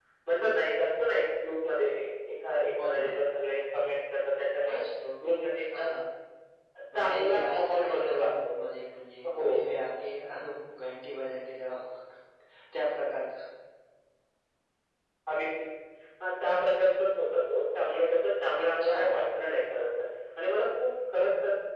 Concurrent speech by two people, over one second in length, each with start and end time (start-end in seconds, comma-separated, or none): 6.9-8.5